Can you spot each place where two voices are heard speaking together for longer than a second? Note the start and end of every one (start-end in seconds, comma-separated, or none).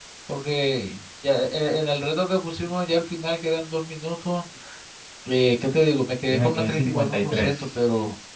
6.3-7.8